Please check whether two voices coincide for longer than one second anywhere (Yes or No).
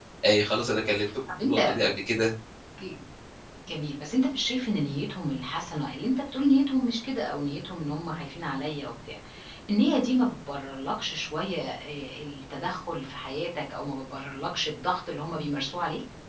No